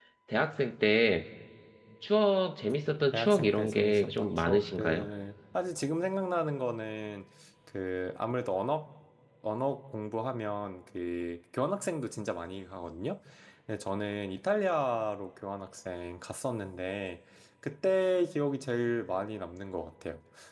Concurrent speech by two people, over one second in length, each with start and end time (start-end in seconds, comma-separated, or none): 3.1-5.1